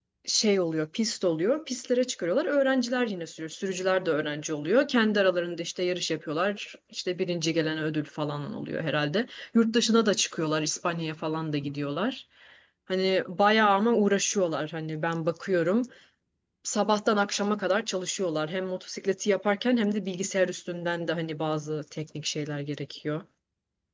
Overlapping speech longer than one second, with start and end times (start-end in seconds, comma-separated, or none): none